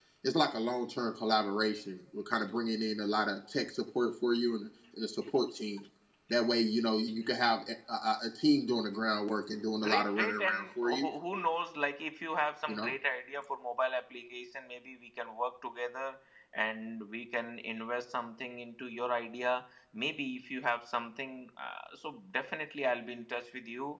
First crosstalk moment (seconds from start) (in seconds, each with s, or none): 9.8 s